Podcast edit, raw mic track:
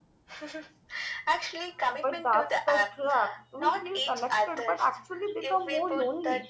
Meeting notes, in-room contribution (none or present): present